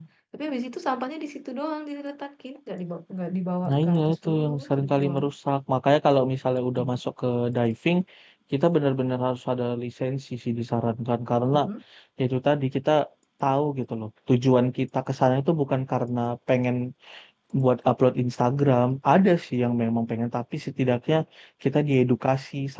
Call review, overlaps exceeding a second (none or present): present